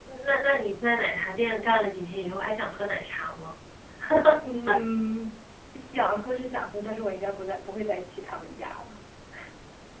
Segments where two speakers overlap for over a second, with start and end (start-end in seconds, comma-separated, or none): none